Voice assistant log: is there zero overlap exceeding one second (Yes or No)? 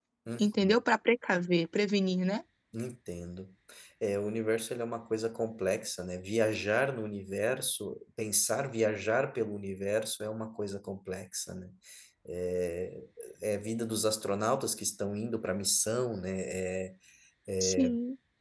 Yes